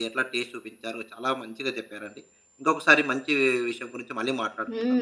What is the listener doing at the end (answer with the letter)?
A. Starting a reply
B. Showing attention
A